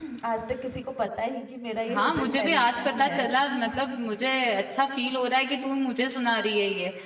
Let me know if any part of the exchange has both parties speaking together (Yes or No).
Yes